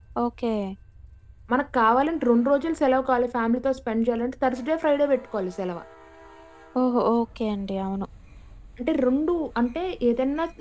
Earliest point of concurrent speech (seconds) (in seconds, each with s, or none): none